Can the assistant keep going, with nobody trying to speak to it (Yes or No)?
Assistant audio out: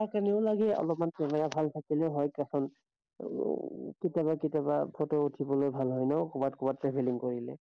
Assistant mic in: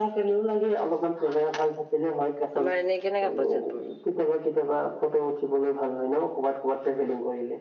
No